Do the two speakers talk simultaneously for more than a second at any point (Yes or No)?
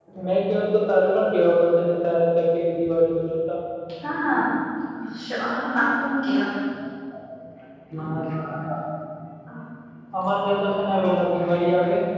No